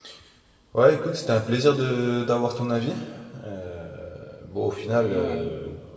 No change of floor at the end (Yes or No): Yes